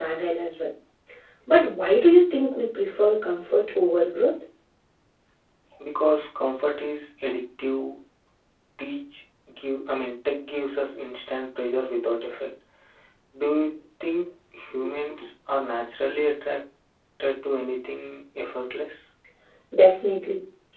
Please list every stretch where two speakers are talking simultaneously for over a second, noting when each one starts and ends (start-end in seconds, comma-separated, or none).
none